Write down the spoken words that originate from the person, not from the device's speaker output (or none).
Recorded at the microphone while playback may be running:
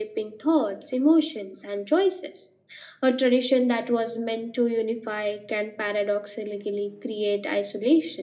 none